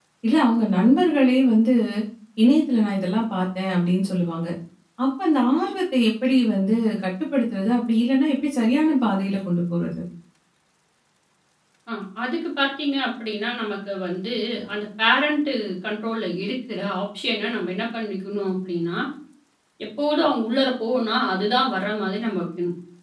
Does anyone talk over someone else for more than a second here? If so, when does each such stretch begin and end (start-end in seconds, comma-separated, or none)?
none